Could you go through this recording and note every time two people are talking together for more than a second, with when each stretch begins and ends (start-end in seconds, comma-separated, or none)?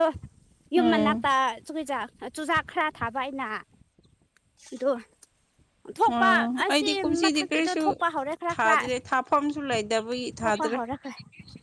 6.2-7.8